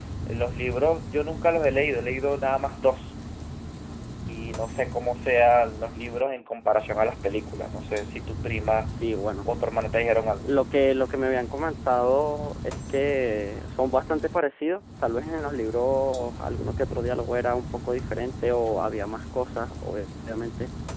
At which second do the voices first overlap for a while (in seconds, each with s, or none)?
none